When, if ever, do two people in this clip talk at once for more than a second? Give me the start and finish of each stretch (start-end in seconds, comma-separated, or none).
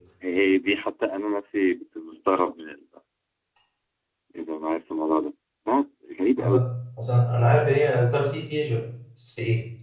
none